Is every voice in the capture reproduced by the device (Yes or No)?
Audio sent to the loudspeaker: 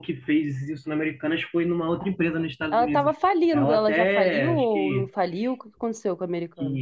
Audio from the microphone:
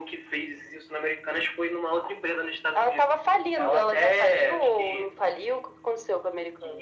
Yes